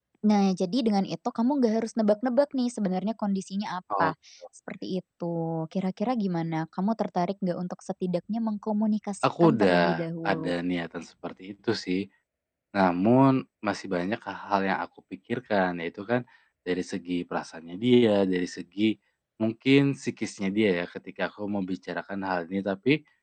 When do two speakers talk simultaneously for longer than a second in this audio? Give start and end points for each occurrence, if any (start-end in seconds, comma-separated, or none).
9.2-10.5